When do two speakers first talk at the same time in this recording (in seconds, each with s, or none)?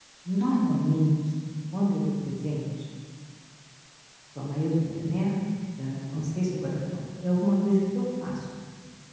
none